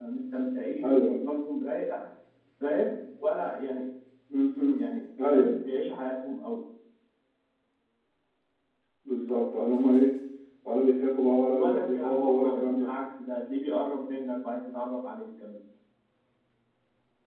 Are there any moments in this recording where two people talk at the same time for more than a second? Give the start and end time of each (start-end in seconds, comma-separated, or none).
11.5-12.9